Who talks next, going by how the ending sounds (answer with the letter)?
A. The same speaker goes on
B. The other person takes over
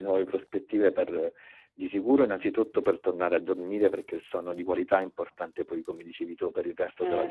A